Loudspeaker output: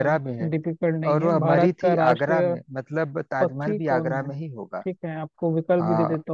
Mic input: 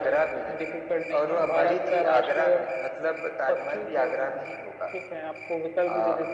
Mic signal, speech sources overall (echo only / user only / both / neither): echo only